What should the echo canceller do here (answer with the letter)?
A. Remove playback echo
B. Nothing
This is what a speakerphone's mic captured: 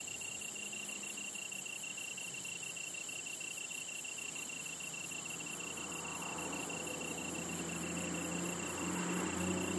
B